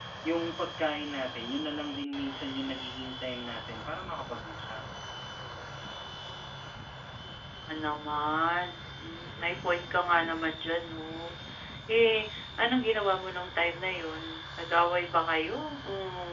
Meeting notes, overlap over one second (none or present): none